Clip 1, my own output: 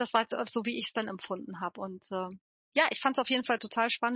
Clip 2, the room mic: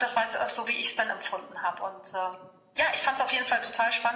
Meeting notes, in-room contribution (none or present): none